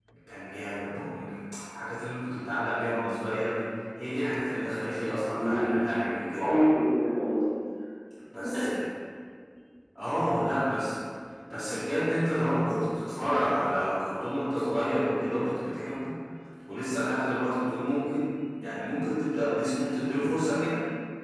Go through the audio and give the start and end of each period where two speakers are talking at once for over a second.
none

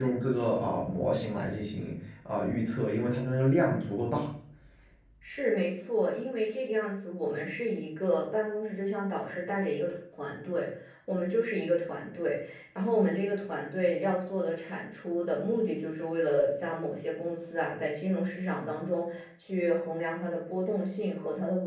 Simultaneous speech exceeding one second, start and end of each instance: none

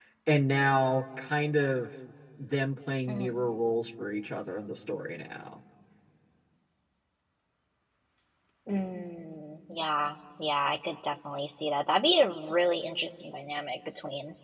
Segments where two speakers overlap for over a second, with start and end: none

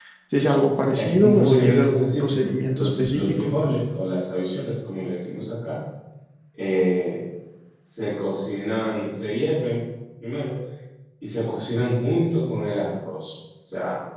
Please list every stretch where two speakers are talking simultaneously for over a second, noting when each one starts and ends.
1.0-3.5

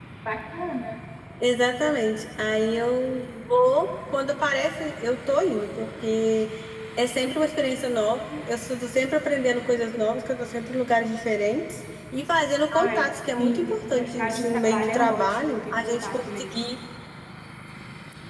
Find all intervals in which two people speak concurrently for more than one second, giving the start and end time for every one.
12.7-16.6

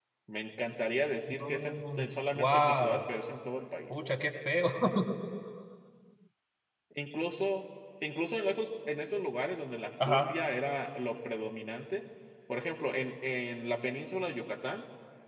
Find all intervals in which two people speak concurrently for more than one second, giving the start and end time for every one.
1.4-3.0

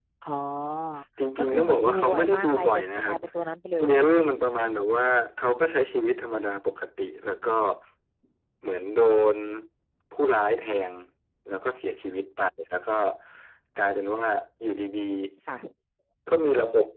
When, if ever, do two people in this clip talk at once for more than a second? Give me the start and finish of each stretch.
1.4-3.2

